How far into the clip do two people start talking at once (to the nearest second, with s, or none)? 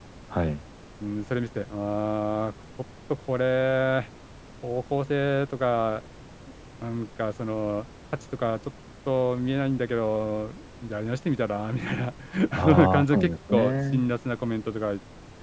13 s